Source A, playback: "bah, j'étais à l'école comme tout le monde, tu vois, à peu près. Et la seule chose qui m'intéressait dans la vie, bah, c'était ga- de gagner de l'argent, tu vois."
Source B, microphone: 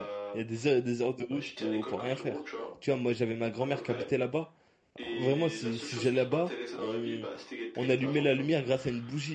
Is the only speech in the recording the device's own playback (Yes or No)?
No